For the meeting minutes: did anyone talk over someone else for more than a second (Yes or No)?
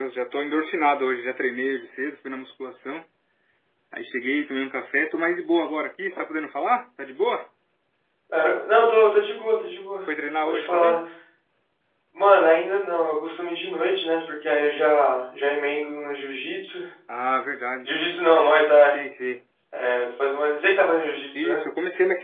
No